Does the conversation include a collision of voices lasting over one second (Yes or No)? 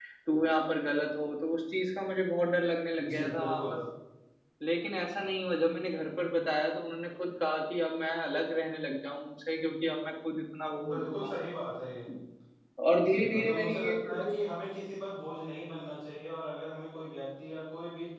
Yes